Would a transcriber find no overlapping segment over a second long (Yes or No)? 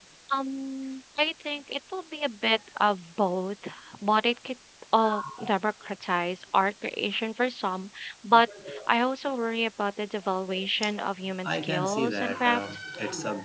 No